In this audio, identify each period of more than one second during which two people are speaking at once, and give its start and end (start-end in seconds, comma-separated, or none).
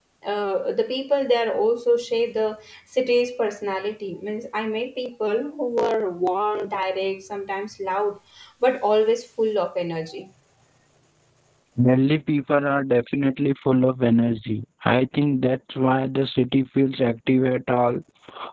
none